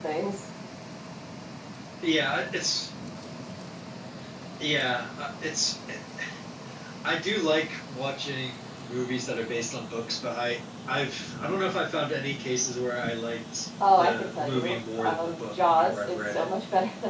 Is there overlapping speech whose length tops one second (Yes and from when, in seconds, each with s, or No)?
Yes, from 13.8 s